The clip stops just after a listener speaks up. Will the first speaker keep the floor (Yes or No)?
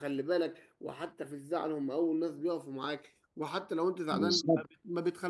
Yes